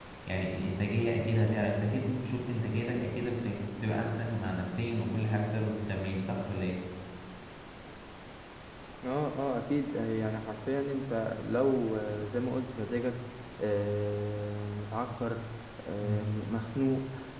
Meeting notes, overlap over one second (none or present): none